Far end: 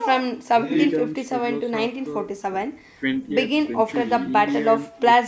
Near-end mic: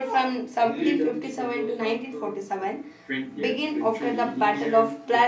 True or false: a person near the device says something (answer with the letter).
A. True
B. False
B